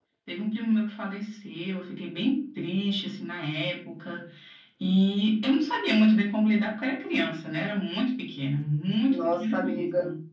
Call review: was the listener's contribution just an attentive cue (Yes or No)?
No